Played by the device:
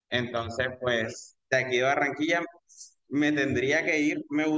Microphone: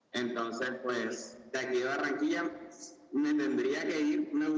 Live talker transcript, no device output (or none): none